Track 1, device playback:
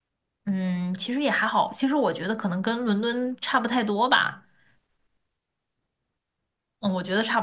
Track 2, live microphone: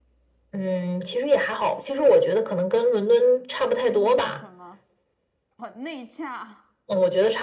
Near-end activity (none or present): present